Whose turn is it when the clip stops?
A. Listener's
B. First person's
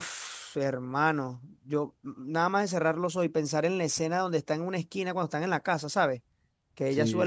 B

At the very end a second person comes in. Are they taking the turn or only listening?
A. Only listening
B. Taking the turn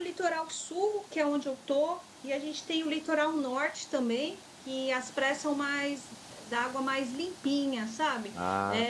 A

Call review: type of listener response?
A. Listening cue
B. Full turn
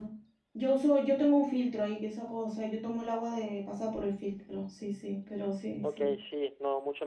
B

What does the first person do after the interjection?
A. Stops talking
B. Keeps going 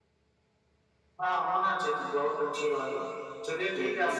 B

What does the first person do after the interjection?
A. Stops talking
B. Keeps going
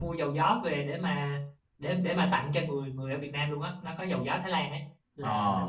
B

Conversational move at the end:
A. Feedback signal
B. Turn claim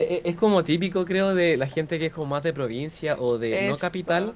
A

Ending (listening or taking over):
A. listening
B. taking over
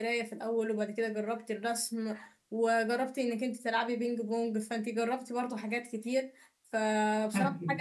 A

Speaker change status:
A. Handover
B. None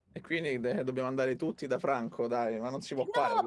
A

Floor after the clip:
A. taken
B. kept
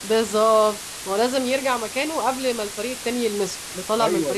A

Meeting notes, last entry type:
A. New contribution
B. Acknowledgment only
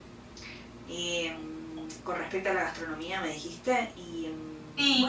A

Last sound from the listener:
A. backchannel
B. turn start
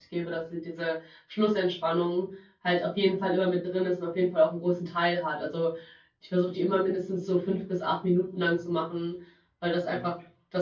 A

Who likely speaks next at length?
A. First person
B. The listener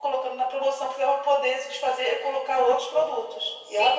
B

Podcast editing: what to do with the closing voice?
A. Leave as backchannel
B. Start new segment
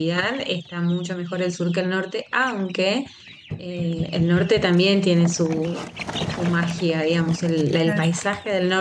A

